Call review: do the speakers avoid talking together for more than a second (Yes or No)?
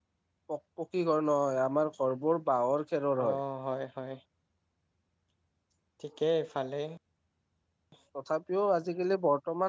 Yes